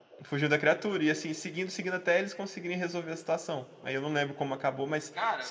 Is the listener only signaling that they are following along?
Yes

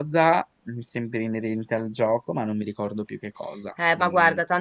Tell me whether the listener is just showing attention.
No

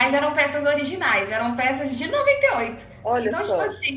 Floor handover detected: No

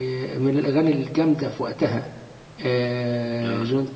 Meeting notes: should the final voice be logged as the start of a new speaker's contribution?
No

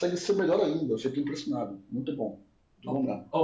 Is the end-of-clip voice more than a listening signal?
Yes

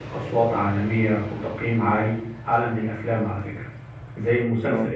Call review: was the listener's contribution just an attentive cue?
Yes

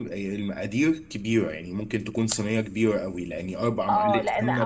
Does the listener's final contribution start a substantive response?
Yes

